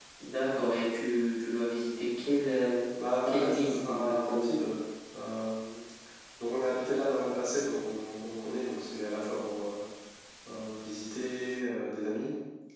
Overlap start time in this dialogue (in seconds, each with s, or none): 3.3 s